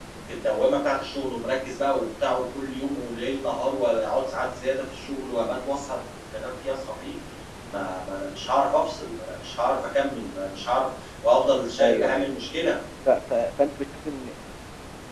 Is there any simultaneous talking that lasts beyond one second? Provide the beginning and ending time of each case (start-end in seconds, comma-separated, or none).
none